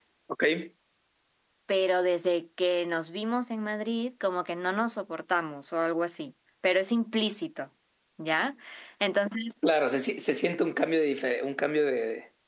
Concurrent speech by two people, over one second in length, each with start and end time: none

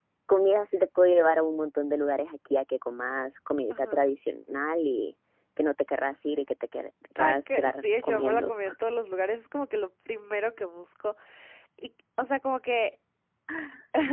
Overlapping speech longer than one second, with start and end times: 7.2-8.5

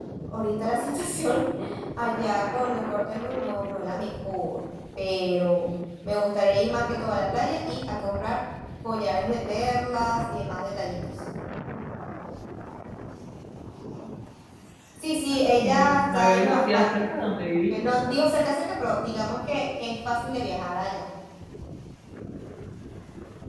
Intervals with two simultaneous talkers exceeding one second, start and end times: 15.3-17.1

